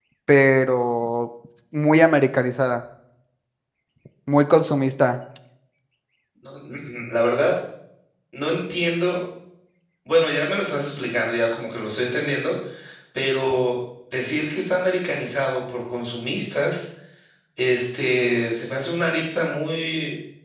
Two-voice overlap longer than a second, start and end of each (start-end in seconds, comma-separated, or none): none